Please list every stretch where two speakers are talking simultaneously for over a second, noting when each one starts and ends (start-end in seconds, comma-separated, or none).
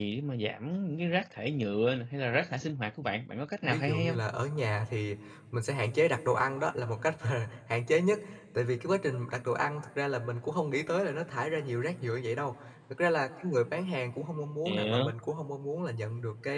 none